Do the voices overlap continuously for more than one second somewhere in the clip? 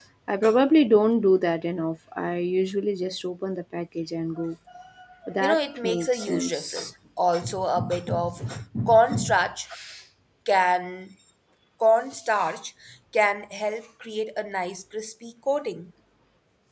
Yes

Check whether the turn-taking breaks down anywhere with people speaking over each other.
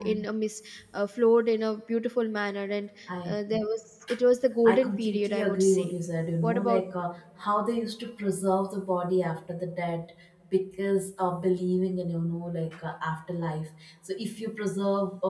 Yes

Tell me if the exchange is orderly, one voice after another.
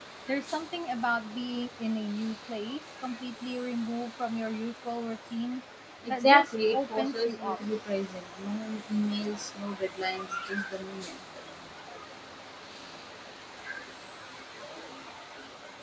No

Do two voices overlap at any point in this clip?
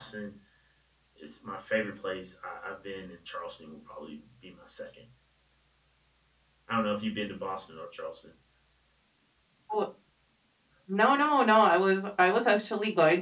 No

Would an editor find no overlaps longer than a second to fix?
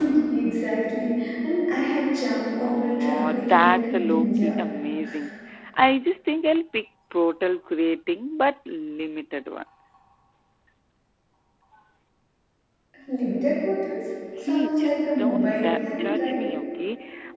No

